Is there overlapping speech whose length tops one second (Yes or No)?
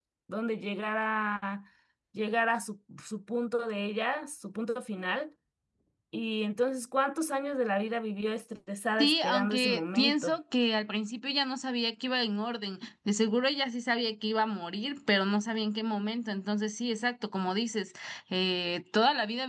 Yes